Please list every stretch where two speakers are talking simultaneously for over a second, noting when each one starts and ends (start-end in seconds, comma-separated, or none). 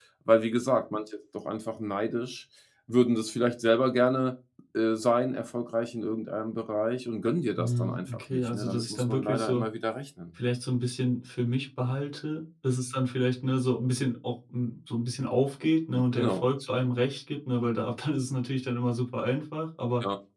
7.6-9.7